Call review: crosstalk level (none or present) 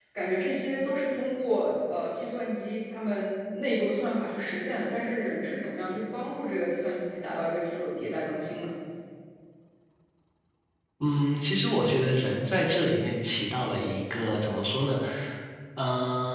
none